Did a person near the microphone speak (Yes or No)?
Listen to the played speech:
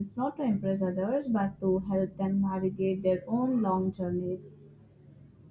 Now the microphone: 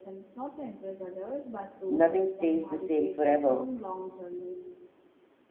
Yes